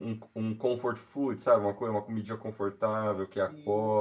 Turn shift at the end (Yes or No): Yes